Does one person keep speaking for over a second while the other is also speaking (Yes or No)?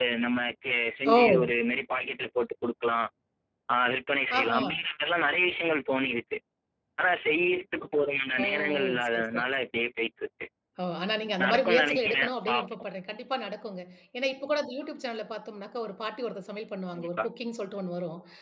Yes